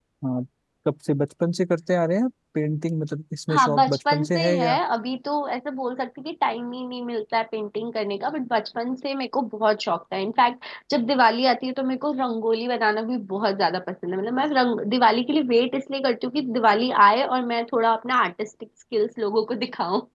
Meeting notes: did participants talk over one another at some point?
Yes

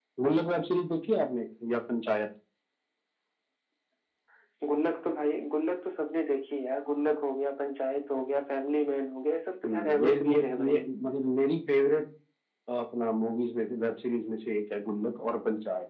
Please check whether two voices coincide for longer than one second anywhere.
Yes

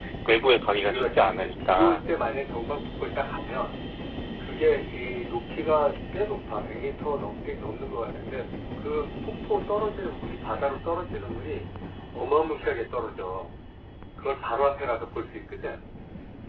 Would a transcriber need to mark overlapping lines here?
Yes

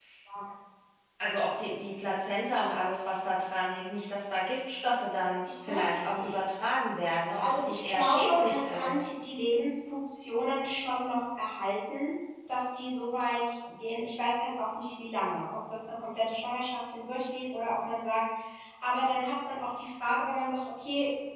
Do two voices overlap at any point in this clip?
Yes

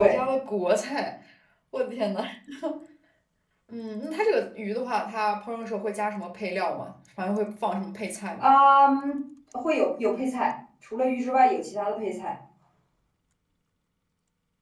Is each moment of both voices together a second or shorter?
Yes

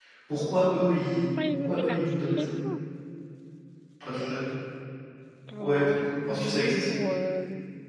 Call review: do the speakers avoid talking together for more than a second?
No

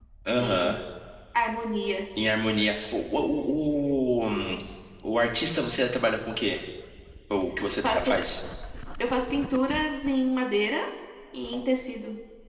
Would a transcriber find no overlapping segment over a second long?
Yes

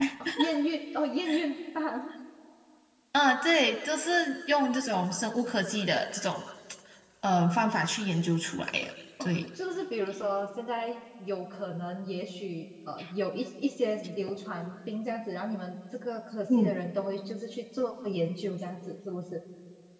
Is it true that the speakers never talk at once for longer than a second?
Yes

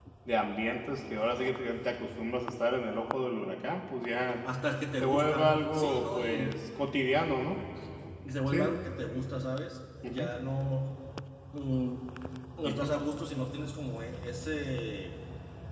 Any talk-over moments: Yes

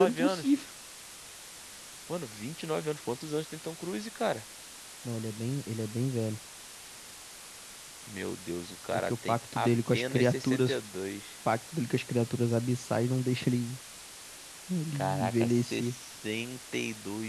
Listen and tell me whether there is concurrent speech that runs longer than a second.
Yes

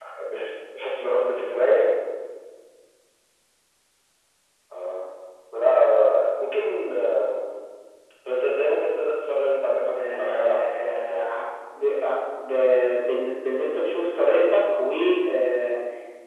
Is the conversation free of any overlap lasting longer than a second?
No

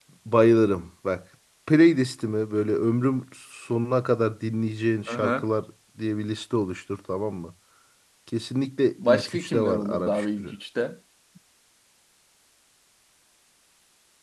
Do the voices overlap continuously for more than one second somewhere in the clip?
Yes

